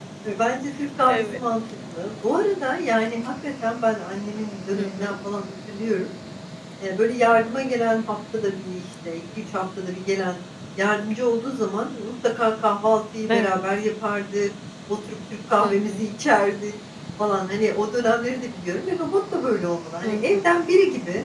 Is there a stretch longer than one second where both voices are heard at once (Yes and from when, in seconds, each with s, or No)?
No